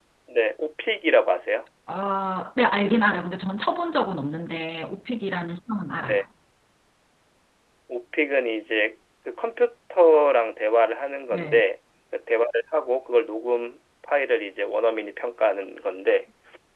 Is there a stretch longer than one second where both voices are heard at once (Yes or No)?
No